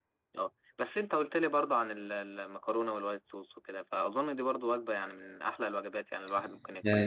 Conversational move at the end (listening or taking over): taking over